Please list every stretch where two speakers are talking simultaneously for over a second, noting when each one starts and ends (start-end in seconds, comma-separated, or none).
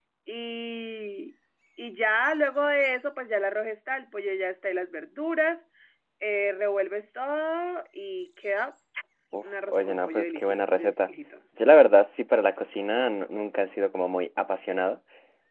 9.4-11.1